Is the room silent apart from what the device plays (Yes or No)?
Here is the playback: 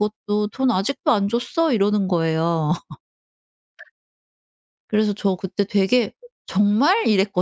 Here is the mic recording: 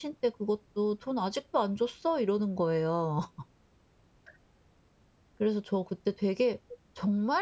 Yes